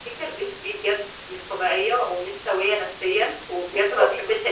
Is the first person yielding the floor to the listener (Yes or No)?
No